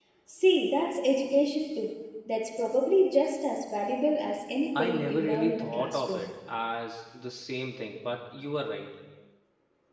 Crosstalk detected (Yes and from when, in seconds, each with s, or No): Yes, from 4.8 s